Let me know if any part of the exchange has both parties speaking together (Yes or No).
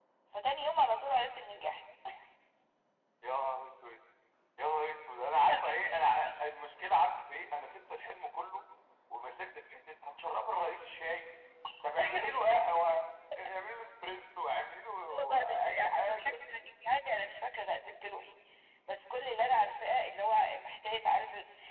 Yes